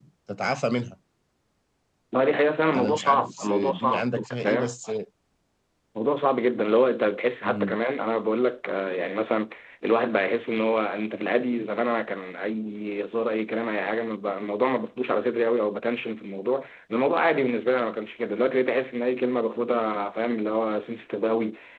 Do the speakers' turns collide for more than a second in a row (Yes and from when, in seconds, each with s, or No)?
Yes, from 2.7 s